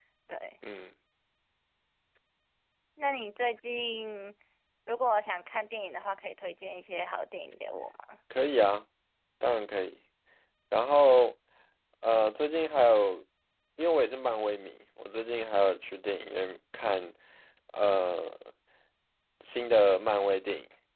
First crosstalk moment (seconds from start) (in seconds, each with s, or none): none